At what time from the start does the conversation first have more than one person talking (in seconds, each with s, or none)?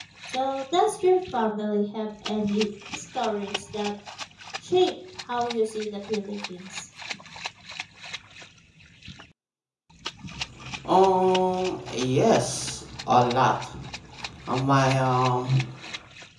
none